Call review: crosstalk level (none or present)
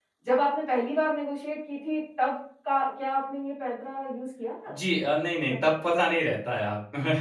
none